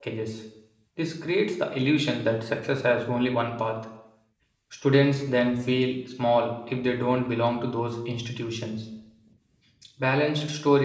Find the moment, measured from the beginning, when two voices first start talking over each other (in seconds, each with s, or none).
none